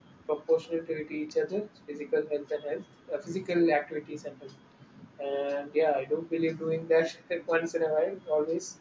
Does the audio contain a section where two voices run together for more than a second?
No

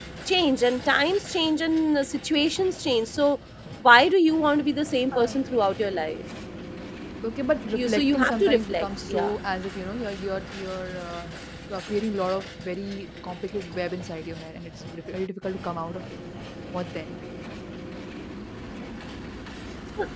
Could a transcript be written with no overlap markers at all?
No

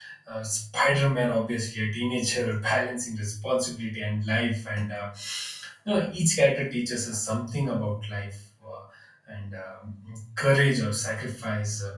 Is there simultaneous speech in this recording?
No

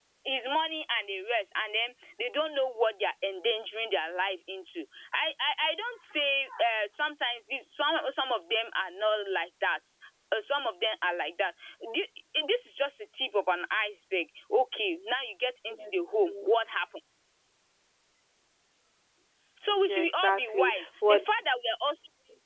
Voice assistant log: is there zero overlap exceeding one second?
No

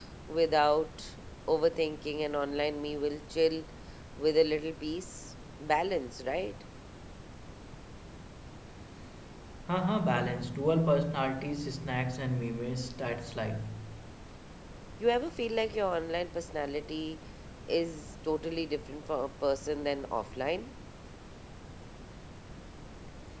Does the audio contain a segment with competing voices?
No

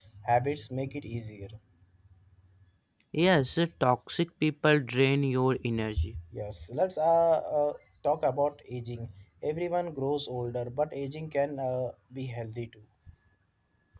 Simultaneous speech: No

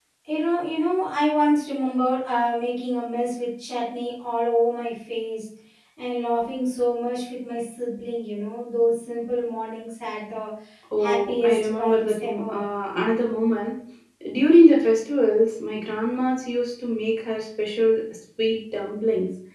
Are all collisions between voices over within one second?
No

